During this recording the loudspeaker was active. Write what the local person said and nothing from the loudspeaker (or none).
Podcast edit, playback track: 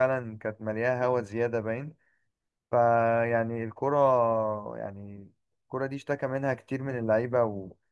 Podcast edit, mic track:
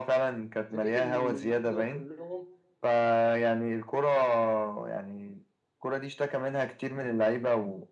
فكره ان النجوم دول كلهم